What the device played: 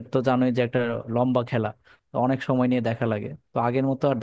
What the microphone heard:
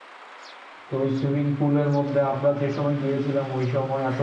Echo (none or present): none